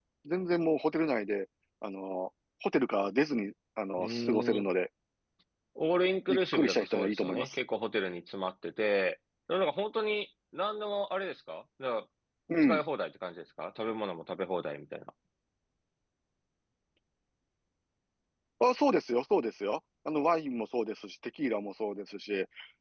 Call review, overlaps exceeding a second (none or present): present